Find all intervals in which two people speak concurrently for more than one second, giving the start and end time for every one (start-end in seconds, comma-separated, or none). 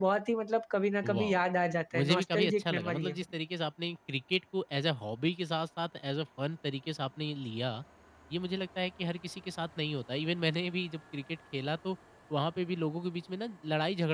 1.9-3.2